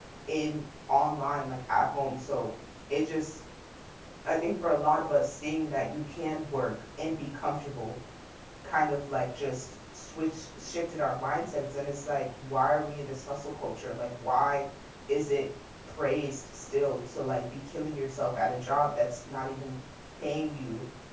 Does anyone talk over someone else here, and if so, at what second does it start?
none

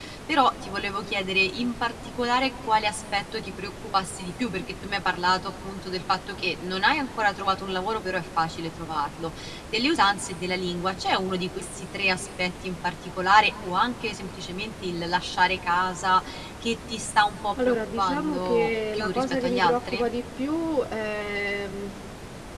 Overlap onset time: 18 s

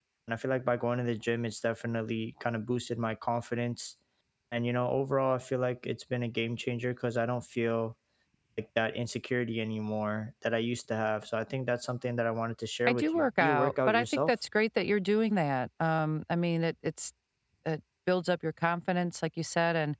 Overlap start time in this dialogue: 13 s

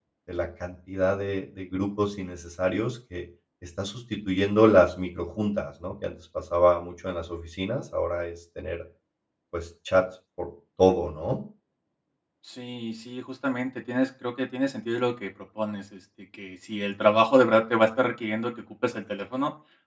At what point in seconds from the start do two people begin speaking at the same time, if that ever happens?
none

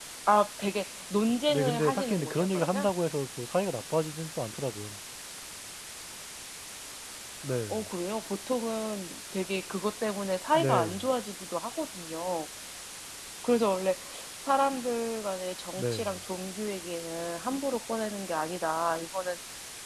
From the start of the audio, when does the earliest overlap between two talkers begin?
1 s

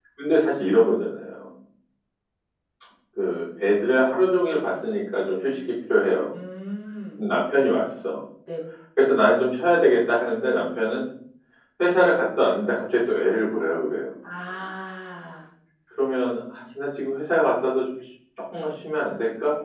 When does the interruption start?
none

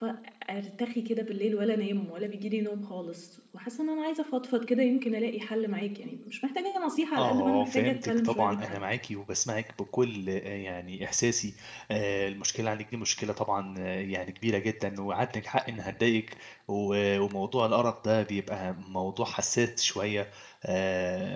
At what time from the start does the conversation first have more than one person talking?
7 s

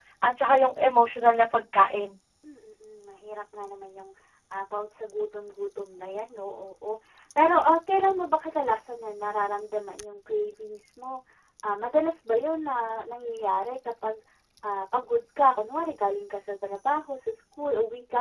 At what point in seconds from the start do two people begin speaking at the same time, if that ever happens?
none

